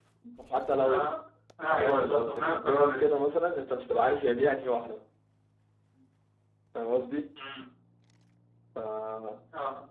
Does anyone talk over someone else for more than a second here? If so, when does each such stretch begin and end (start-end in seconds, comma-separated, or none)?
1.8-3.0